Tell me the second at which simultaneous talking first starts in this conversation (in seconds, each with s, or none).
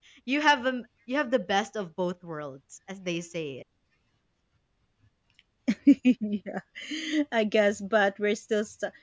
none